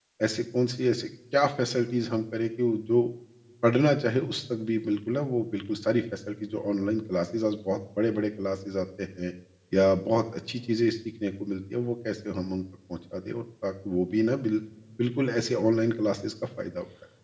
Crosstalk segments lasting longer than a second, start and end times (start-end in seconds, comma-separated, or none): none